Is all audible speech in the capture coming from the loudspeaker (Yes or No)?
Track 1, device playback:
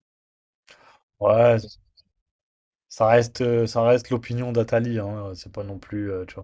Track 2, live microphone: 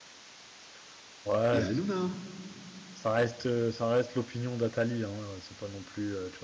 No